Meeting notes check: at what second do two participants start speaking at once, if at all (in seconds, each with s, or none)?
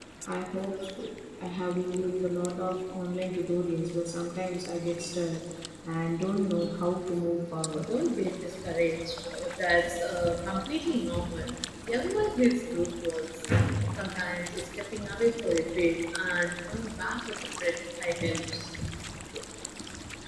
none